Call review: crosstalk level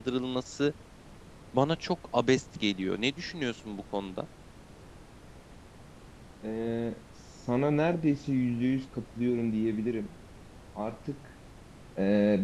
none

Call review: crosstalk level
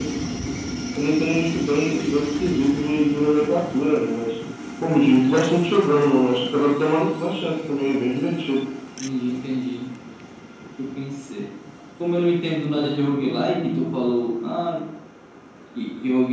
present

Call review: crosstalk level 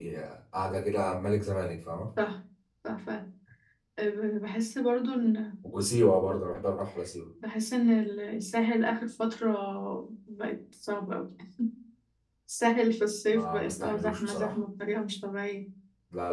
present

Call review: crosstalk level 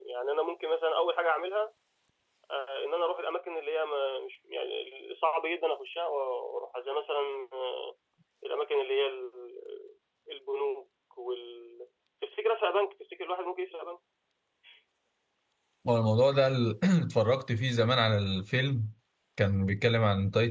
none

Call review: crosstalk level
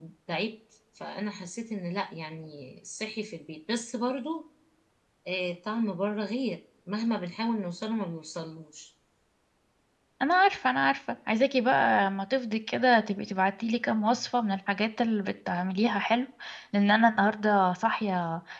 none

